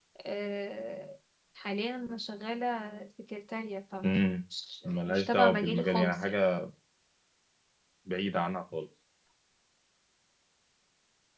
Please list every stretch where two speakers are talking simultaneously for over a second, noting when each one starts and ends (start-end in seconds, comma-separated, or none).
4.8-6.4